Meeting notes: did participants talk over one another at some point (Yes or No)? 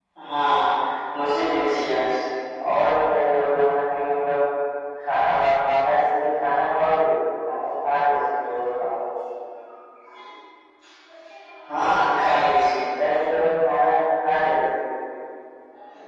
No